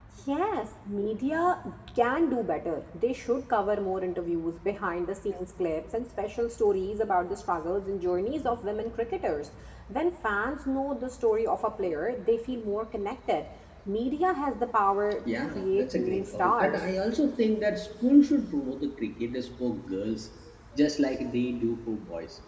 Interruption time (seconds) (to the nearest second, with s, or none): 15 s